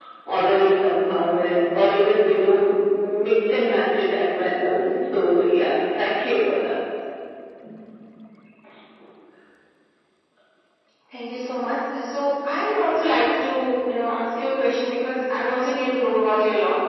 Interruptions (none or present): none